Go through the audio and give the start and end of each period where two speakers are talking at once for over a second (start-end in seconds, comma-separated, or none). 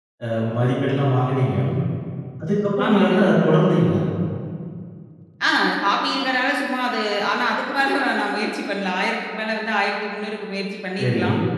none